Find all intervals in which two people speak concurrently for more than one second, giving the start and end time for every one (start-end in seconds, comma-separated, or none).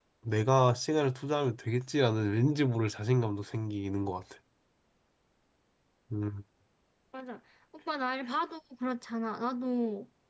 none